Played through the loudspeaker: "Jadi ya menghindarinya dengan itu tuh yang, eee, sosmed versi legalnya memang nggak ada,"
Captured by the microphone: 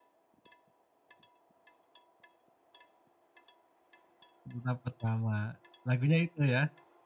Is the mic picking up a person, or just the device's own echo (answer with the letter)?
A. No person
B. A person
B